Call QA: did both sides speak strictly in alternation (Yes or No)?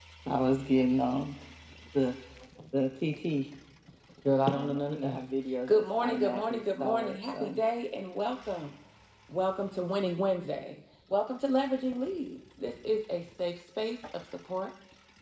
No